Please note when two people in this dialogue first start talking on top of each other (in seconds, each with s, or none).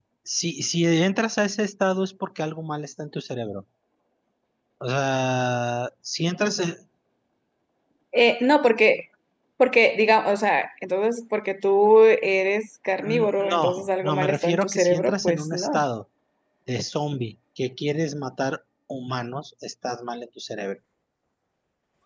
13.0 s